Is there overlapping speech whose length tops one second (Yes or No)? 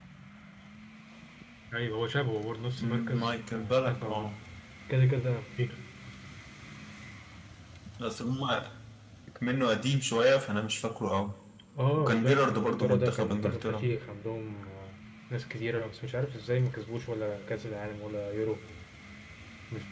Yes